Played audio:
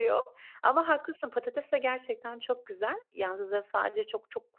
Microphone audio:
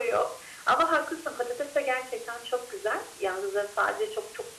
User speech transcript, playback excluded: none

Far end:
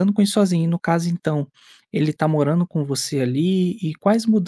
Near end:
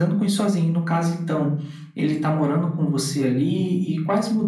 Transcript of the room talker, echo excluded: none

